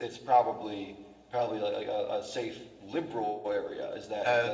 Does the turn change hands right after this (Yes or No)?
Yes